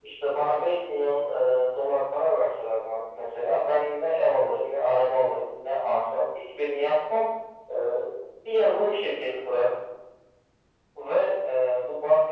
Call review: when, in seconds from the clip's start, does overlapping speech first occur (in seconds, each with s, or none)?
none